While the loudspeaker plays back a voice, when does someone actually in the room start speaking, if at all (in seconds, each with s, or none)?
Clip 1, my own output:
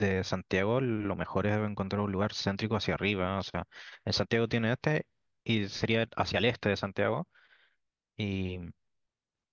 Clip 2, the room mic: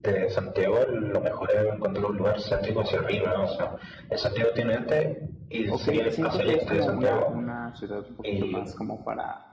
5.7 s